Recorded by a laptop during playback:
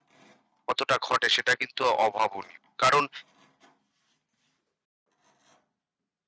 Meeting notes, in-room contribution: present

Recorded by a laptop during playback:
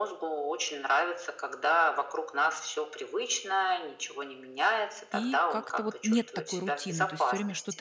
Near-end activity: present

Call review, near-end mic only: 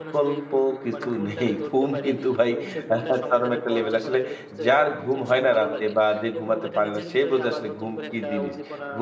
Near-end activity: present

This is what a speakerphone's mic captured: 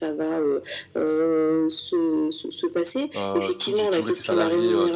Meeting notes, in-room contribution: present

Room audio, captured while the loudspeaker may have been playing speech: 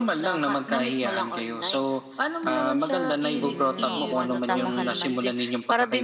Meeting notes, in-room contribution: present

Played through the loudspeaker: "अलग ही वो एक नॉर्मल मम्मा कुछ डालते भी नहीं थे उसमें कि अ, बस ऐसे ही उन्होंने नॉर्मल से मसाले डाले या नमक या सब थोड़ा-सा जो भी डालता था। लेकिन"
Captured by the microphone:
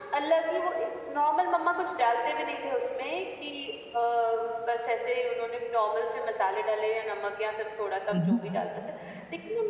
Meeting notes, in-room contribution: present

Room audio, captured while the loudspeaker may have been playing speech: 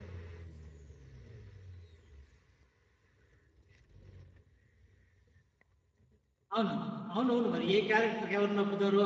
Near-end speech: present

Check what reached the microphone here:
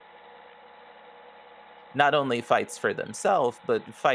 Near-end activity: present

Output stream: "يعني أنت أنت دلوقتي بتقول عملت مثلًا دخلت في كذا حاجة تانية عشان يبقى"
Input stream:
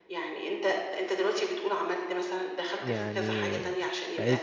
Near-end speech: present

